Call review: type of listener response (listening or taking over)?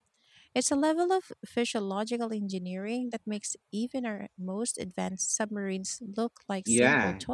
taking over